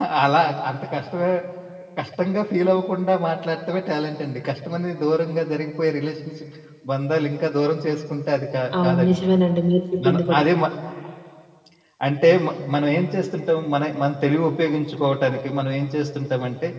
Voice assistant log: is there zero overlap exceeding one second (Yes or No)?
Yes